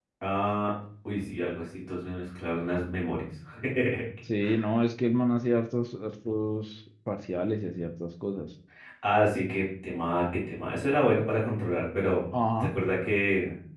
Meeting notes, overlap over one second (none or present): none